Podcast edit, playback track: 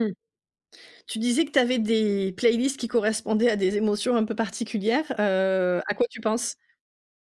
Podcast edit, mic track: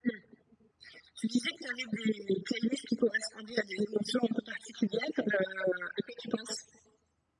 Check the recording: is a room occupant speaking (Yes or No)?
No